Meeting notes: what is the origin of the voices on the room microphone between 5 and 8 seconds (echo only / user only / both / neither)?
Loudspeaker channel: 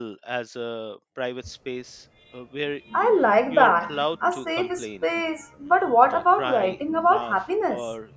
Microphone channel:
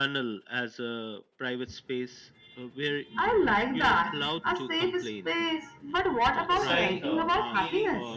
both